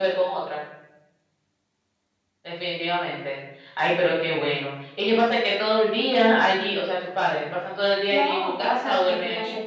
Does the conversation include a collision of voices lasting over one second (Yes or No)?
Yes